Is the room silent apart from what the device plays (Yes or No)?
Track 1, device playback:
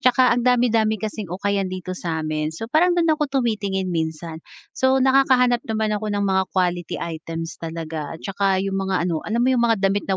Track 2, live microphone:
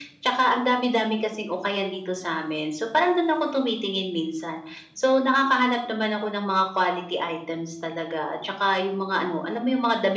Yes